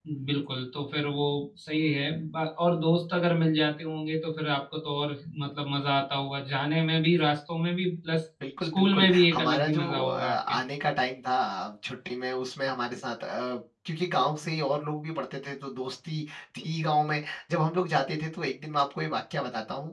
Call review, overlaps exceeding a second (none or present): present